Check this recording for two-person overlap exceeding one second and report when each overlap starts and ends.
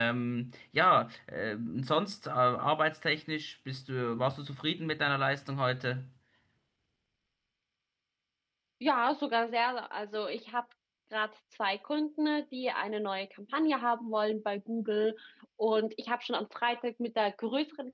none

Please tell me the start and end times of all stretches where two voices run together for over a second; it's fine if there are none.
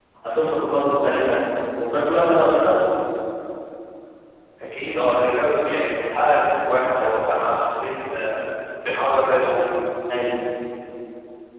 none

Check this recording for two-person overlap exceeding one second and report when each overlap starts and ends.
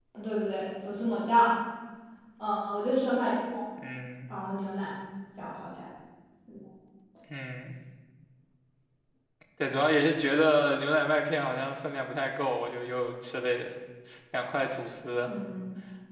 none

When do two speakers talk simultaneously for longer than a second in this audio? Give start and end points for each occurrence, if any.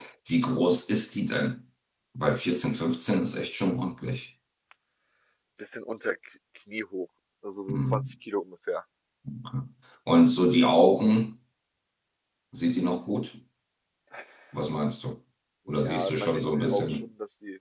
15.8-17.1

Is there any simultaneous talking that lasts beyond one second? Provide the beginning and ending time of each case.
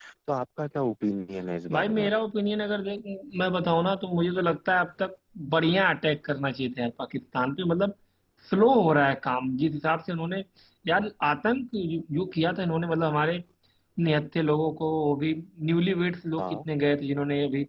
none

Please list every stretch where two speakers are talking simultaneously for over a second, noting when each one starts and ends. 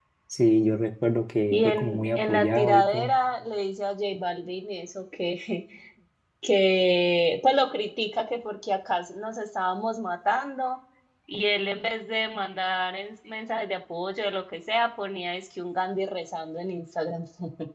1.5-3.1

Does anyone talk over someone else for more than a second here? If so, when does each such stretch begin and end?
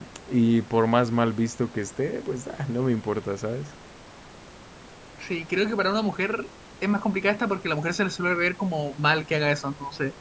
none

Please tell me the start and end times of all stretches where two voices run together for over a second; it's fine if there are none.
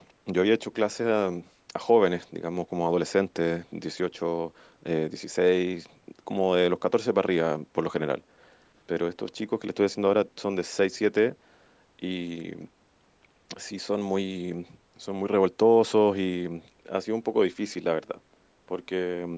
none

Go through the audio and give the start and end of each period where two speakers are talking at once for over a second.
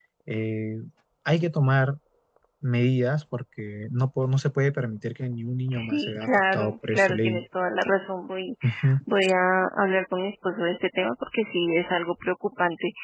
5.7-7.4

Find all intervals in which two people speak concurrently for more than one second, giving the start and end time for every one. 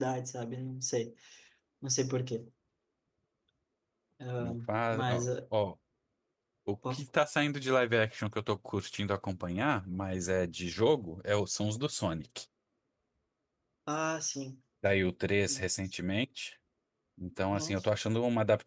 none

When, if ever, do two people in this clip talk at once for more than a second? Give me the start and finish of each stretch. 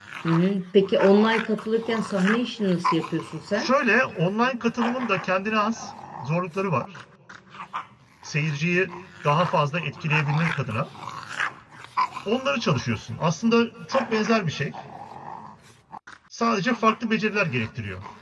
none

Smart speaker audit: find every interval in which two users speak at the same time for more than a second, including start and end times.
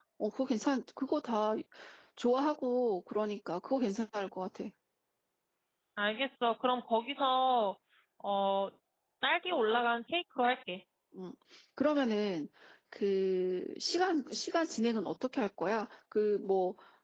none

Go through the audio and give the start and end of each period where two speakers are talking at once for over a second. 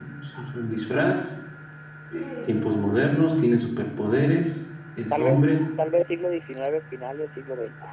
none

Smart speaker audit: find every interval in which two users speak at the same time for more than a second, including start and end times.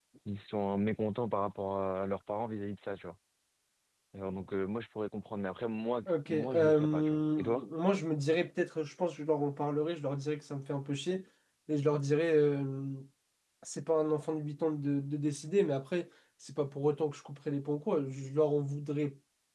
6.1-7.6

